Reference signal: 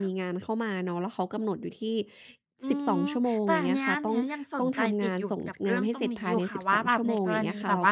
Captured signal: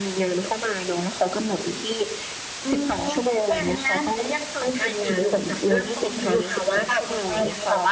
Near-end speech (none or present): none